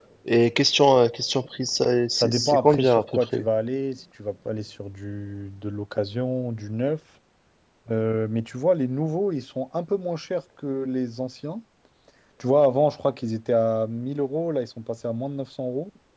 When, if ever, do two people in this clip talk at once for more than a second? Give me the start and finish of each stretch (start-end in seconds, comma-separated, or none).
2.2-3.5